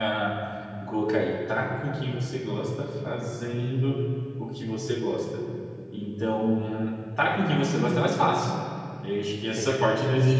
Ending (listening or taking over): listening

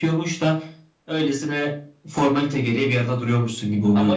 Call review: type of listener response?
taking over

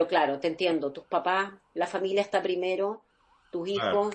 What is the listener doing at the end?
listening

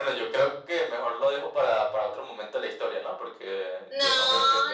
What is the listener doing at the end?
taking over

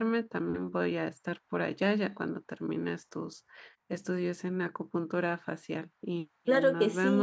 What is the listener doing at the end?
taking over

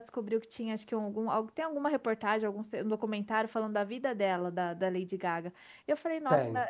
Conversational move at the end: listening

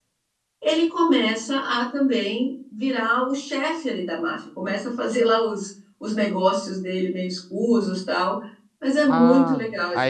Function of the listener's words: taking over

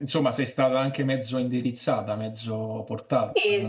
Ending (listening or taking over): taking over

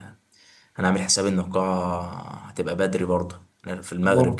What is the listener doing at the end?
listening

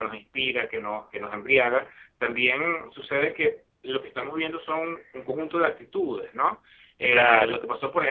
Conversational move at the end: listening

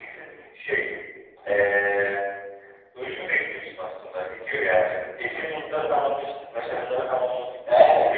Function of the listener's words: taking over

